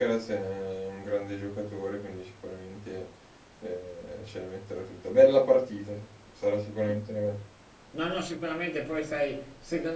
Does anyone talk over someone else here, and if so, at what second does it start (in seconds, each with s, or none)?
none